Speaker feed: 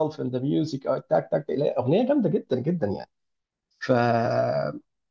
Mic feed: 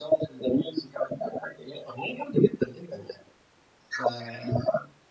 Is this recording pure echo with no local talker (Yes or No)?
Yes